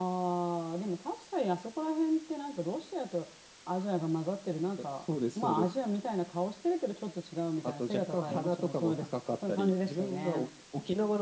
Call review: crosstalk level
present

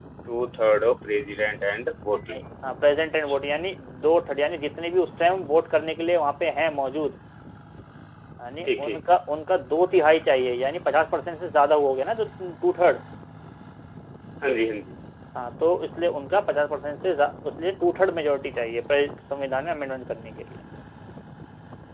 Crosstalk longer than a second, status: none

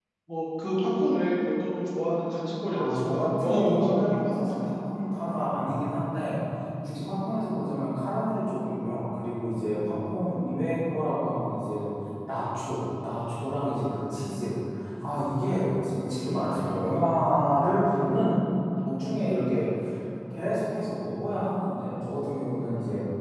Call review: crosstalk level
present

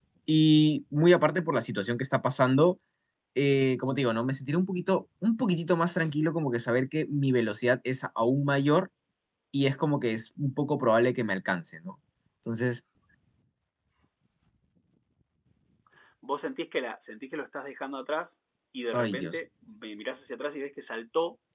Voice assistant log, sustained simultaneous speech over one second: none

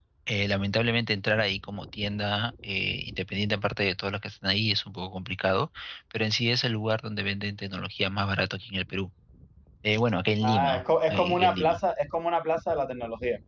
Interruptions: present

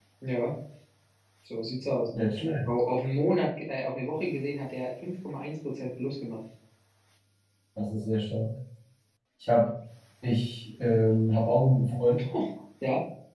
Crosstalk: none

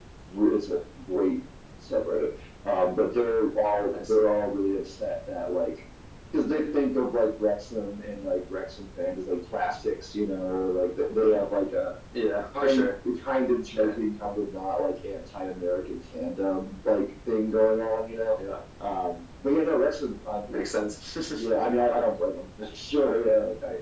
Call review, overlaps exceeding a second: none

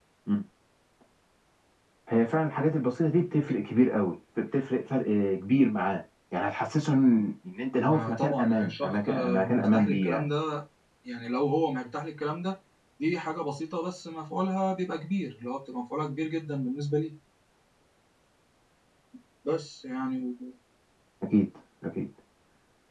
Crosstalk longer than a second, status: present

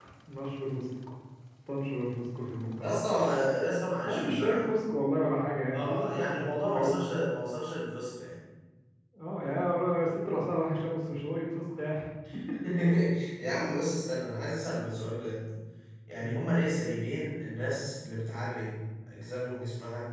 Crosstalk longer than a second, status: present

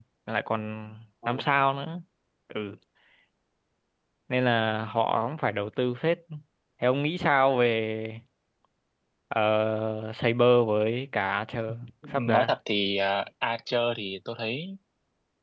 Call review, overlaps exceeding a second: none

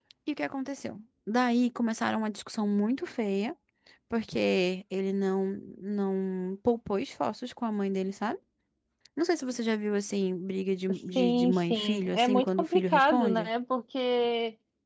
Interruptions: present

